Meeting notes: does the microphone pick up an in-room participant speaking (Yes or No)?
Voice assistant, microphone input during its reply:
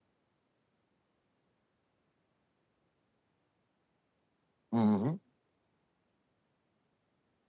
Yes